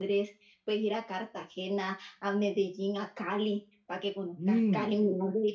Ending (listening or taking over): listening